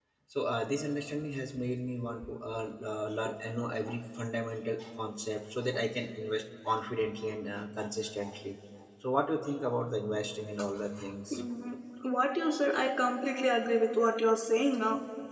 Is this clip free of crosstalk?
Yes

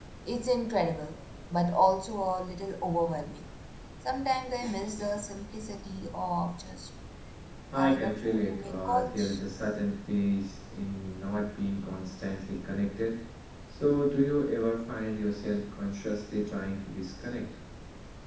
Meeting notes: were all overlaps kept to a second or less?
No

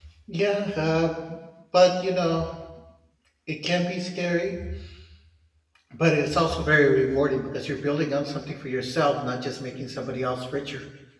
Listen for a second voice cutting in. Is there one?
No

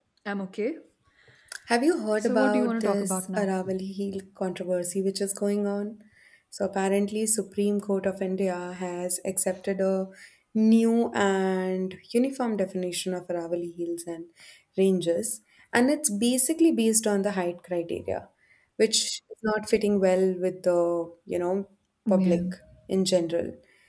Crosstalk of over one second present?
Yes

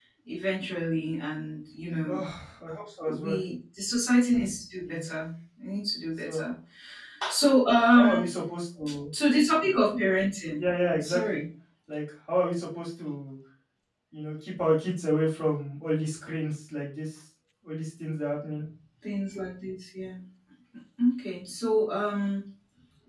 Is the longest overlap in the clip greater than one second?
No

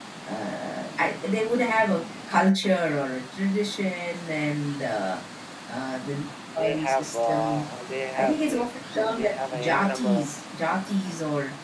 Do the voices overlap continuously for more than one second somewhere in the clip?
Yes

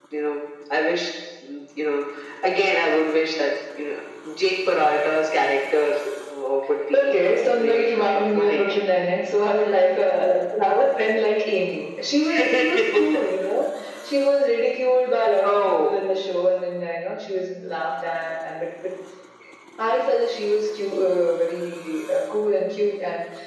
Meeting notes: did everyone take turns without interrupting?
No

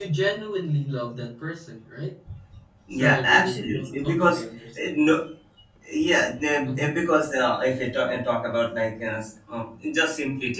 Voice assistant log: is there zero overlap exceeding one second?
No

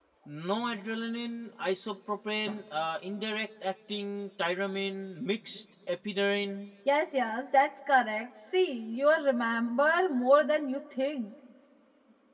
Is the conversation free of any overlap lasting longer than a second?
Yes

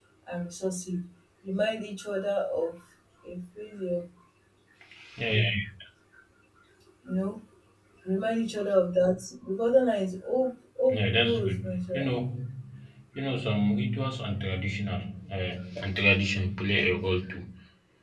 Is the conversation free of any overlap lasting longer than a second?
No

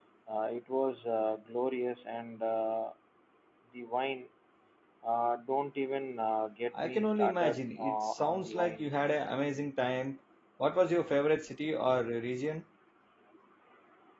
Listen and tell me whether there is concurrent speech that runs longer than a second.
Yes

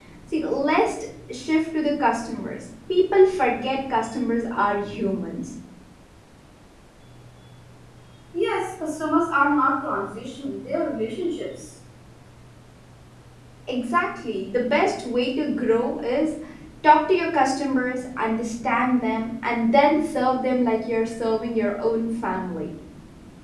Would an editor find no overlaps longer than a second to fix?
Yes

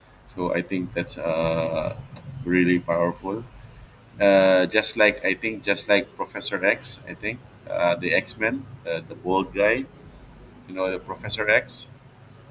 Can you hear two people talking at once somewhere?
No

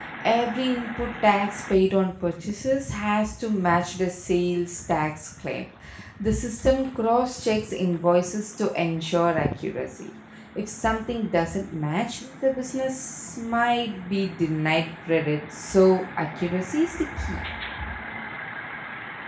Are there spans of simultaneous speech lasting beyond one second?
No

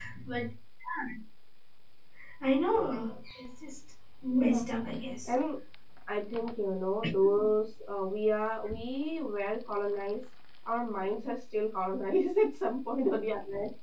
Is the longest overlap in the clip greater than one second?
No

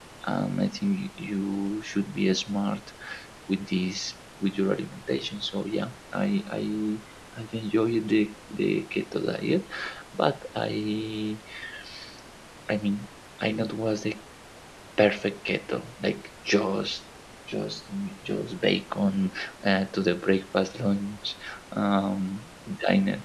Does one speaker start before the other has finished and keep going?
No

